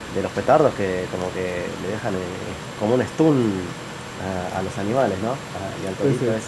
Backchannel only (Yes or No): Yes